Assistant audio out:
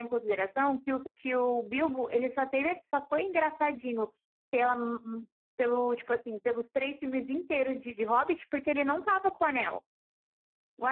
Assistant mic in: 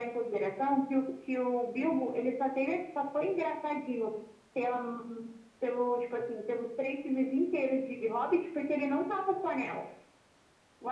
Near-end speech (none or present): none